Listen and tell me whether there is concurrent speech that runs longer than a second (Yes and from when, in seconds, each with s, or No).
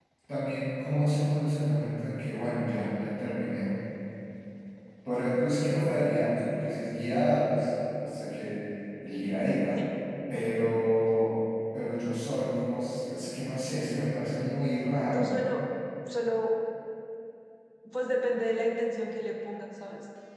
No